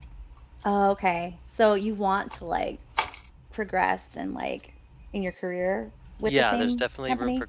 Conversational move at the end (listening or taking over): taking over